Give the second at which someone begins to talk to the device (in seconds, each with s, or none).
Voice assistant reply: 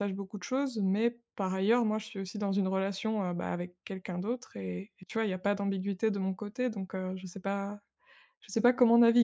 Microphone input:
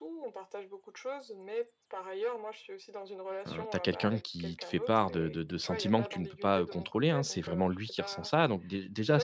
3.5 s